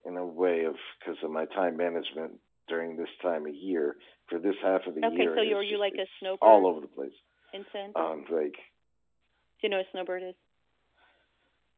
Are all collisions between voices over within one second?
No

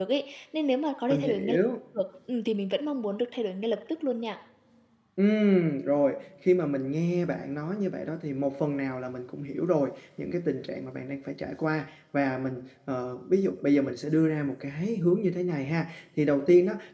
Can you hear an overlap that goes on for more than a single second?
No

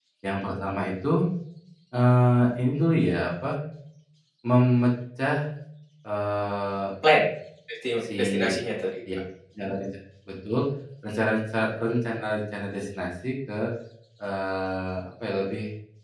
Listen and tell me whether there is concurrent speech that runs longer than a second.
No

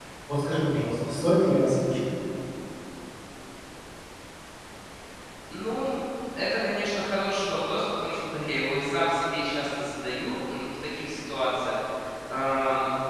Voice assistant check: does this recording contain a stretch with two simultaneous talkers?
No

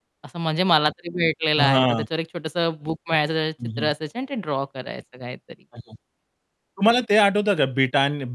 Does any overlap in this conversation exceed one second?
No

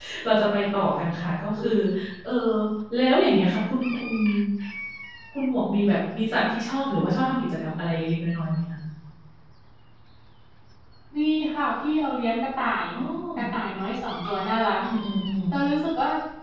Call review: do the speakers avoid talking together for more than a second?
Yes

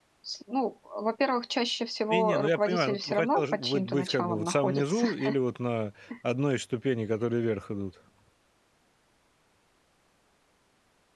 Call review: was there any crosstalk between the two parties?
Yes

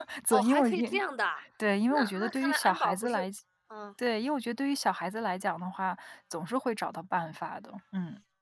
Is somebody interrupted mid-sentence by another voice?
Yes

